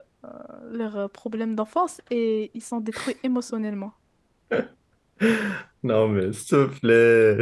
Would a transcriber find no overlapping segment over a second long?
Yes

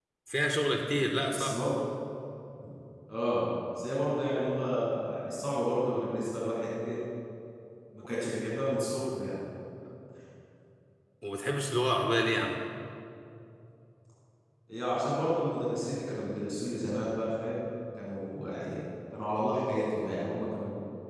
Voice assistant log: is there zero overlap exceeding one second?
Yes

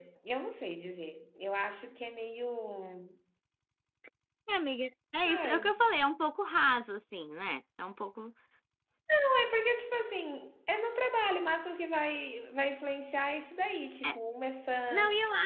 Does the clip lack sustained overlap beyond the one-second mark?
Yes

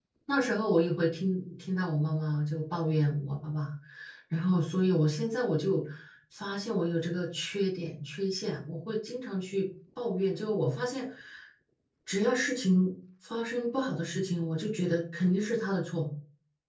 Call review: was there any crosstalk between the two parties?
No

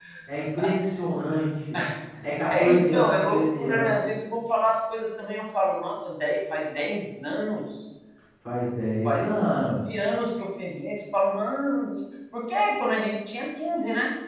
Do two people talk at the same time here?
Yes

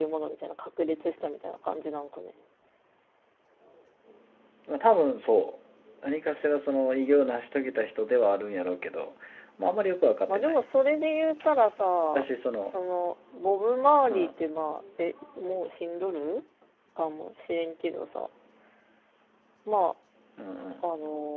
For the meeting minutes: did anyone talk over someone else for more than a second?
No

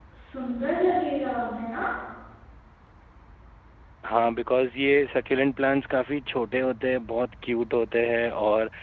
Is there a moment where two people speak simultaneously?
No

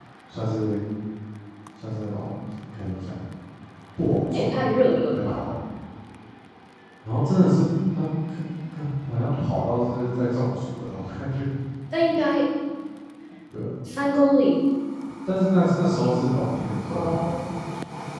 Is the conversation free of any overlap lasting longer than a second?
Yes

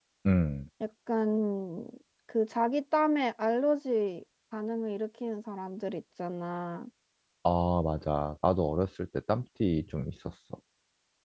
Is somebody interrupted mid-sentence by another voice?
No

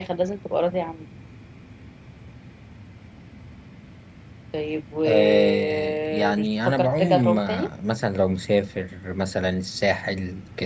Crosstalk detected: Yes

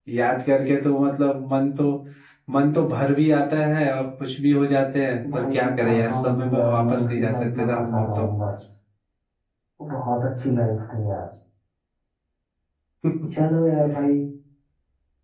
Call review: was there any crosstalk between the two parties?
Yes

